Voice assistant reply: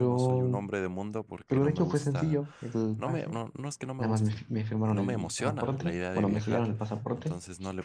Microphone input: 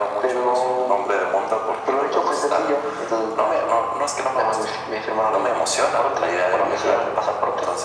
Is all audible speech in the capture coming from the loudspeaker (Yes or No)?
Yes